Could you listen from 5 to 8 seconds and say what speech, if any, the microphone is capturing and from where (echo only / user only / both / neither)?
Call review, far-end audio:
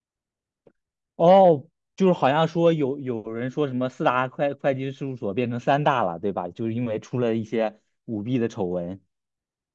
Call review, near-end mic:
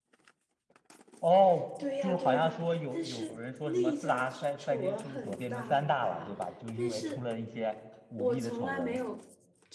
both